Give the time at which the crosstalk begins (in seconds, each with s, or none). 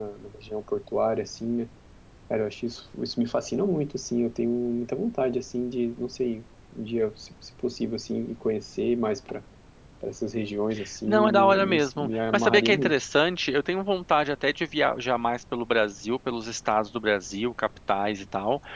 11.1 s